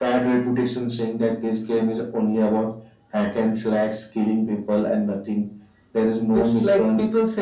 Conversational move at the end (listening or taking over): taking over